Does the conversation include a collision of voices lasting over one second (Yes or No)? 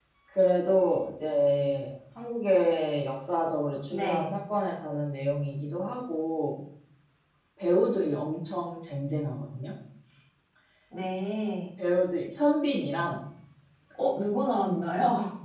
No